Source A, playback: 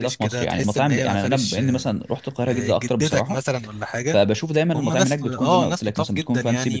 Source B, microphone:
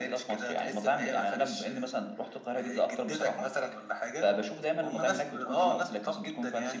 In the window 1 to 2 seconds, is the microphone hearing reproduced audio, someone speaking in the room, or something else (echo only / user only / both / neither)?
echo only